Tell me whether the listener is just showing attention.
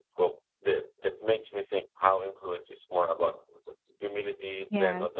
No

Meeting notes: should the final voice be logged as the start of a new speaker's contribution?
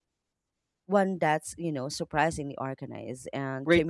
Yes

